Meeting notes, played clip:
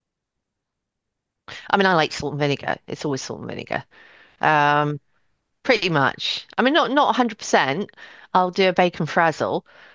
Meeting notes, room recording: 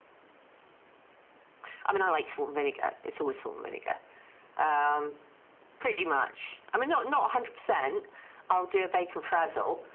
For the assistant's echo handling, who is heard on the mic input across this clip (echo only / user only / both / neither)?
echo only